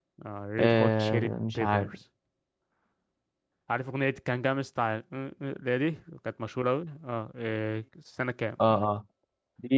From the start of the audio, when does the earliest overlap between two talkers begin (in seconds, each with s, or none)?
0.6 s